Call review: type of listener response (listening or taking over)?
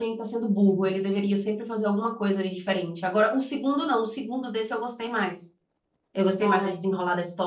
listening